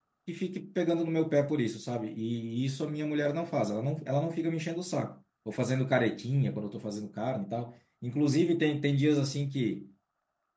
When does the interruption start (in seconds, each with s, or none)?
none